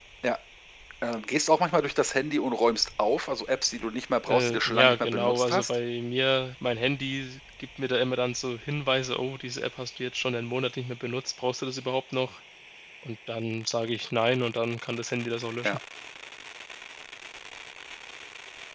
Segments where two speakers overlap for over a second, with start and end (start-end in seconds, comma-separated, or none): 4.3-5.8